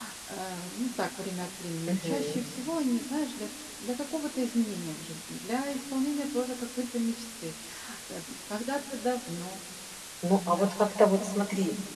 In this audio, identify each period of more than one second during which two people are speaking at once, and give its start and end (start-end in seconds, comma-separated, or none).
none